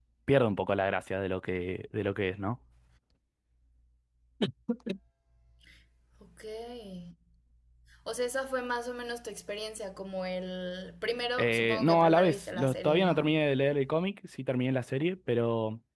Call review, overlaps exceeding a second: present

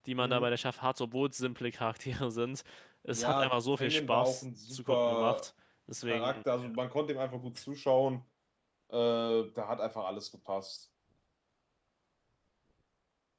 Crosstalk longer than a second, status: present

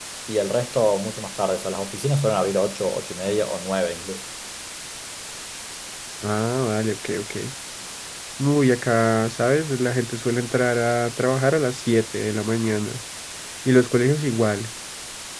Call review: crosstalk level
none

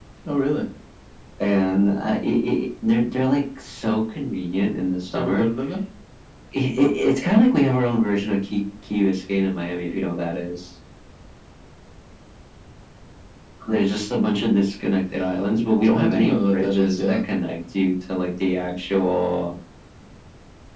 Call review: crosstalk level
present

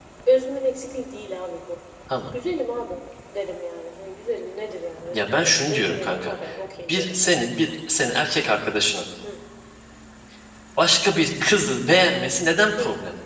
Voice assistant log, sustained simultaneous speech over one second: present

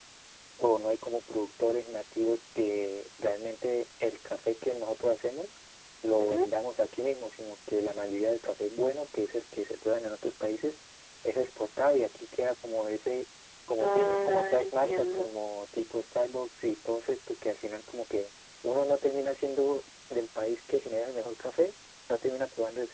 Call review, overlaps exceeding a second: present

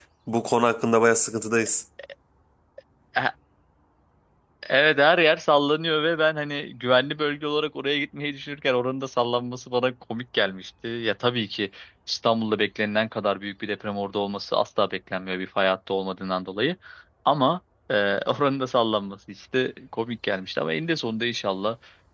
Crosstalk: none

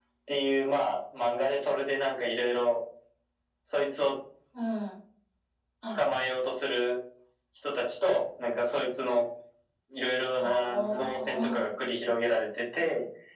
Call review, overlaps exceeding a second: present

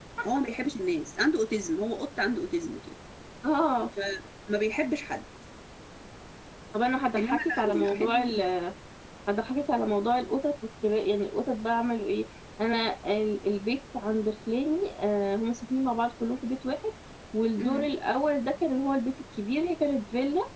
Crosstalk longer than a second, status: present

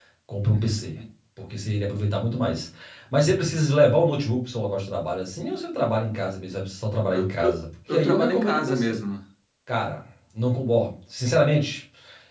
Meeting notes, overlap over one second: present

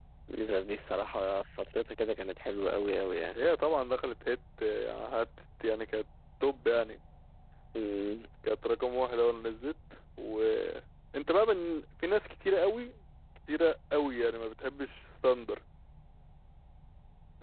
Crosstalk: none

